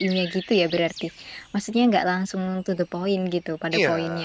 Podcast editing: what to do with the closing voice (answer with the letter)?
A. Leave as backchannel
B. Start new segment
B